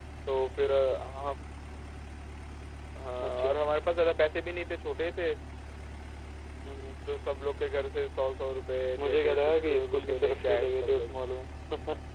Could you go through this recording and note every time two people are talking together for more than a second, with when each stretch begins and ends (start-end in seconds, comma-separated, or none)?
9.0-11.1